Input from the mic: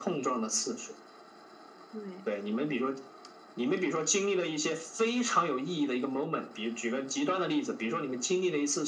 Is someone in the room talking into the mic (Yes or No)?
Yes